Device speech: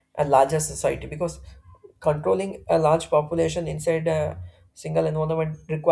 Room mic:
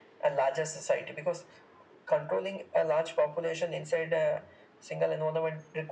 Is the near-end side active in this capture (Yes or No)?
No